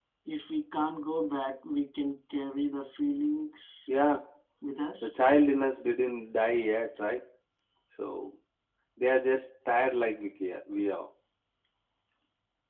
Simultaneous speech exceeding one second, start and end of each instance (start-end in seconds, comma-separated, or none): none